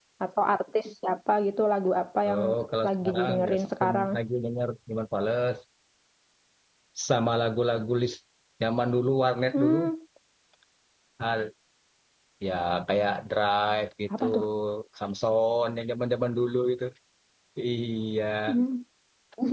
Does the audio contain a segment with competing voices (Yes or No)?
Yes